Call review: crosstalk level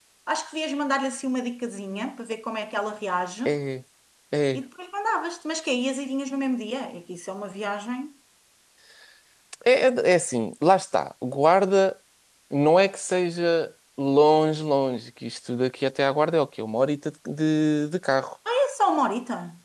none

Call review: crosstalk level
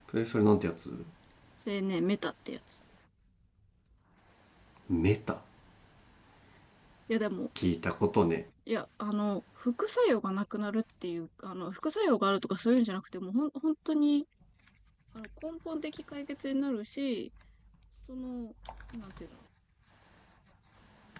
none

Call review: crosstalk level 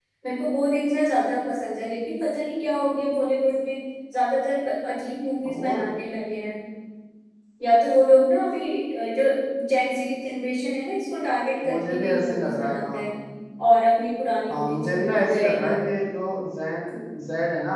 present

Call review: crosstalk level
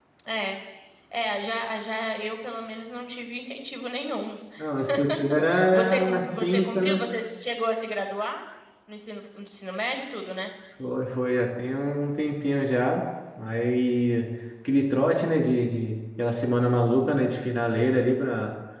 present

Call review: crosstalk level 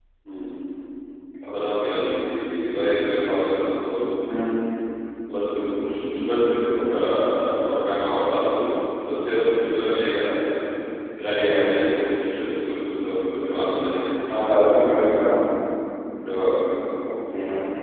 none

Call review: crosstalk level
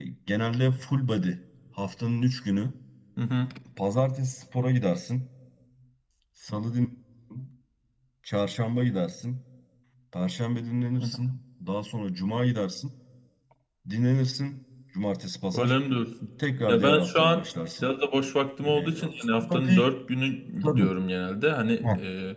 present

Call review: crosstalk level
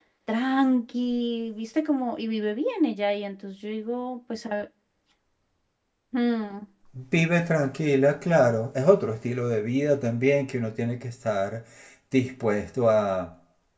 none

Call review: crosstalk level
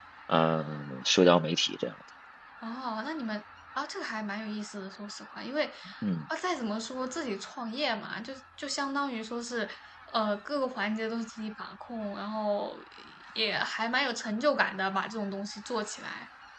none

